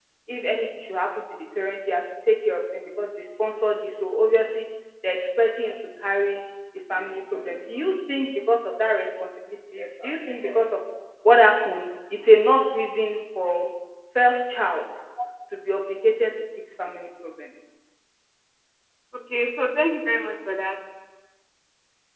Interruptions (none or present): none